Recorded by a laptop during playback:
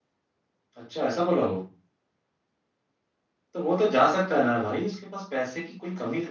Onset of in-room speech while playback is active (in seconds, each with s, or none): none